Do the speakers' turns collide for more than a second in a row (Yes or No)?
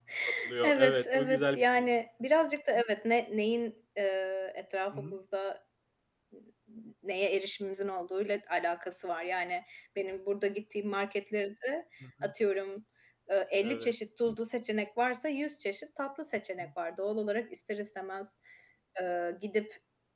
Yes